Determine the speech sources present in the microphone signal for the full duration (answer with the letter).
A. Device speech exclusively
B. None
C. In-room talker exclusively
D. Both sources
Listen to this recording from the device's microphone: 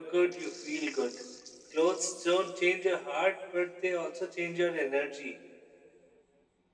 A